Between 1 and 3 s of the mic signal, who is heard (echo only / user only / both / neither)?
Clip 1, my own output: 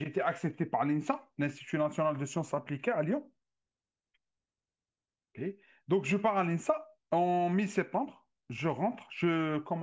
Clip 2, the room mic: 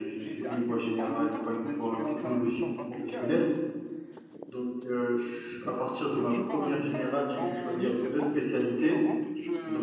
both